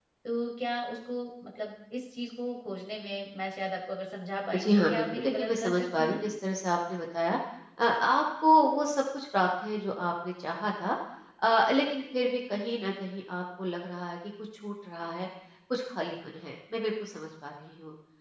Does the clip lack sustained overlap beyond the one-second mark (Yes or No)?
No